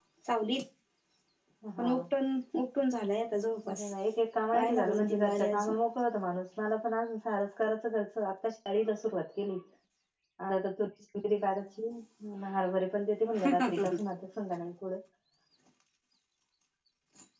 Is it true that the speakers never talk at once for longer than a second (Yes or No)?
No